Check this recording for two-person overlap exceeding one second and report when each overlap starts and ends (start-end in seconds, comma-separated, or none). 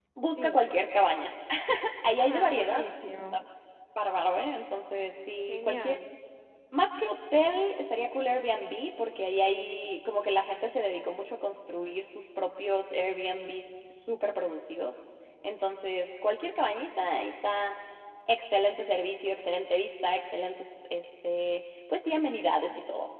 2.2-3.4